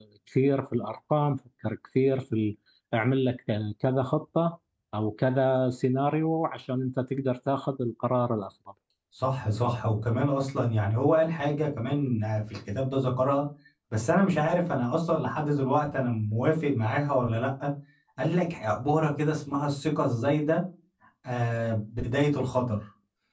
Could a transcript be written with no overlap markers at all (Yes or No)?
Yes